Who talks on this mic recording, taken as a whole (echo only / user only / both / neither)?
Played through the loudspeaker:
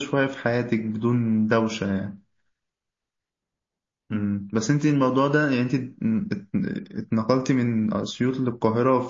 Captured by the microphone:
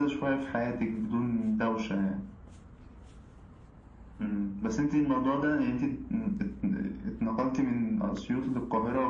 echo only